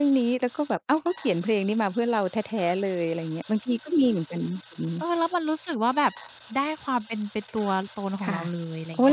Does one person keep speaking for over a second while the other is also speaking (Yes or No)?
No